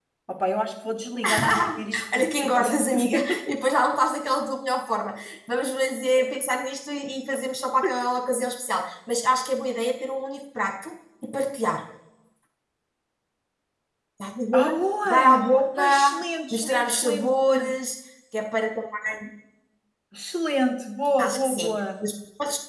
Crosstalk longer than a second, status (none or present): present